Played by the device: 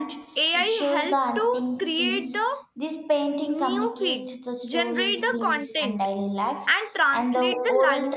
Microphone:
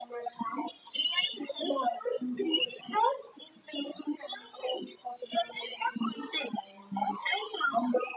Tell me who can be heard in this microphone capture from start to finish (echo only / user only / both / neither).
echo only